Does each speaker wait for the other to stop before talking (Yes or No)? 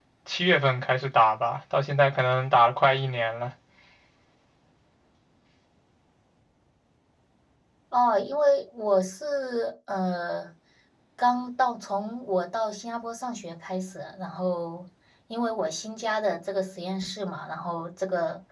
Yes